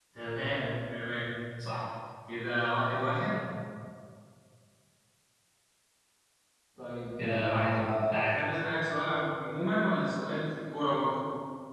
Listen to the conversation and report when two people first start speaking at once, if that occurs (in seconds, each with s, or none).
7.2 s